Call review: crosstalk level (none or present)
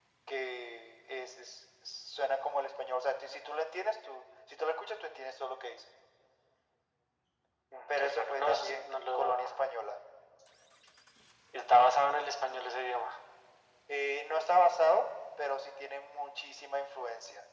present